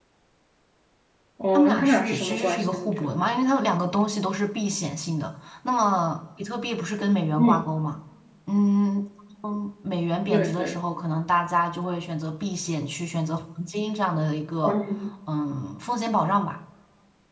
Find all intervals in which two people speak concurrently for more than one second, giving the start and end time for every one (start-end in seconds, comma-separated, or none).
1.5-3.2